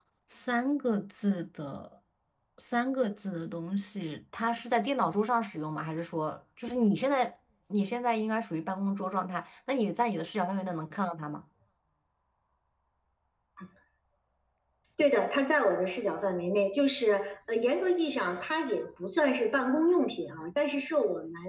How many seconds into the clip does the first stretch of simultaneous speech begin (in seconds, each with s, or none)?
none